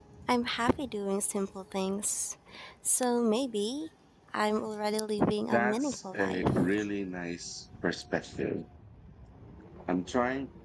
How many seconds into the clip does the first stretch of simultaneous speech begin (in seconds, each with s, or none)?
5.5 s